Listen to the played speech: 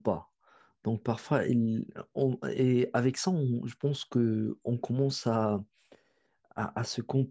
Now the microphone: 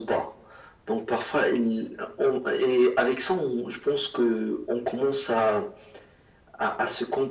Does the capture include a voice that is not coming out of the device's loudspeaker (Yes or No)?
No